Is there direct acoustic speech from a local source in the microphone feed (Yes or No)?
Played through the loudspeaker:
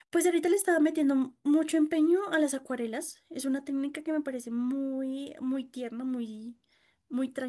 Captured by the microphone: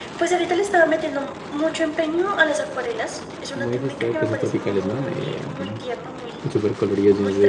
Yes